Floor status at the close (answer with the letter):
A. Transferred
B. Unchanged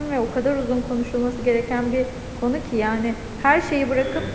B